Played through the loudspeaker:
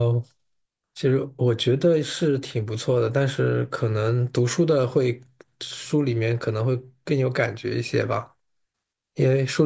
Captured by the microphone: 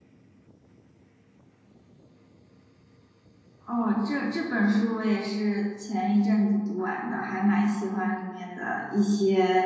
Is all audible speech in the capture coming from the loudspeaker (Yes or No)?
No